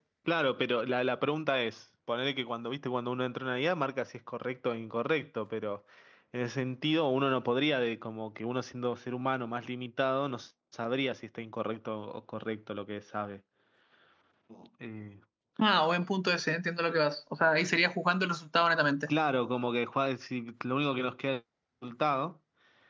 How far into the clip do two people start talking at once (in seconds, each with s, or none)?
none